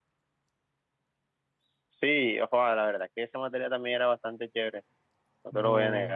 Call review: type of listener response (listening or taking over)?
taking over